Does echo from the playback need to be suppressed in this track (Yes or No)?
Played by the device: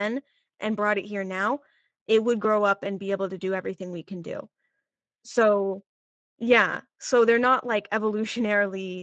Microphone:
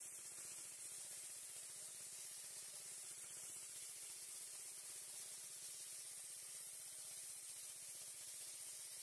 No